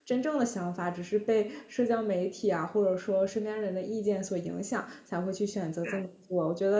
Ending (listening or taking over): listening